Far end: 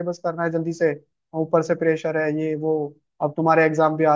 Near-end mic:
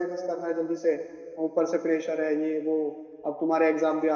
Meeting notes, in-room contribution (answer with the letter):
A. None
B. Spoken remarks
A